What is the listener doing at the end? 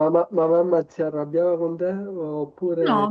taking over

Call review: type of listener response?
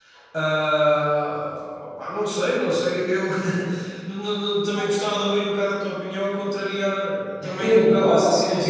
taking over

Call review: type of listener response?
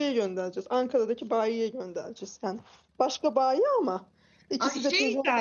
taking over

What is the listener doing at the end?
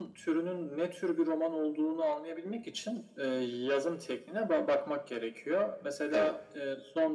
listening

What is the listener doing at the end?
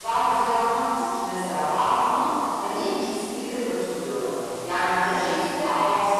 listening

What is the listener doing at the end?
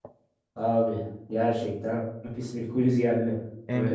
taking over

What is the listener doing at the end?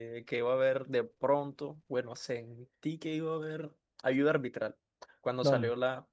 listening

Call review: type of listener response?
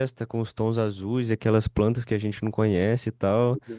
taking over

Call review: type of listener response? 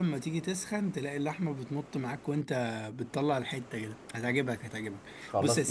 taking over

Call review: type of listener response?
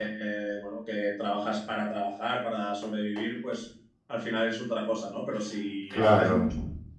listening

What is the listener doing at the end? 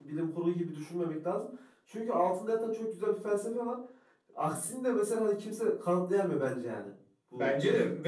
taking over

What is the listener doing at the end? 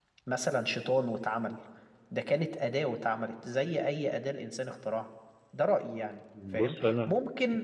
listening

